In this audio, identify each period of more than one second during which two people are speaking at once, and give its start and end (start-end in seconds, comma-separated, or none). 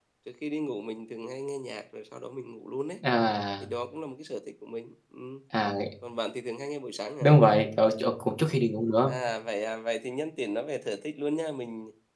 none